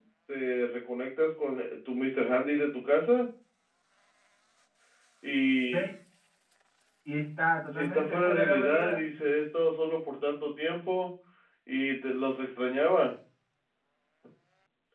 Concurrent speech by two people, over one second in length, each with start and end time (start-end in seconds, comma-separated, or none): 7.7-9.0